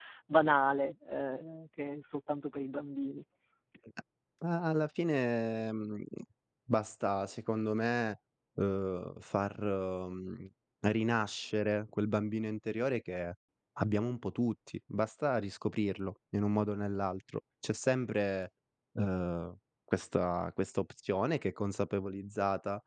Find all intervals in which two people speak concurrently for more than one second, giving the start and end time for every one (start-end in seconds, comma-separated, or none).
none